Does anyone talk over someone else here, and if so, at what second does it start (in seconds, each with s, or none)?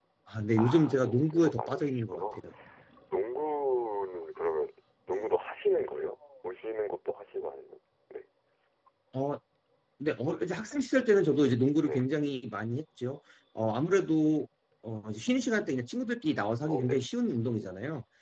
0.6 s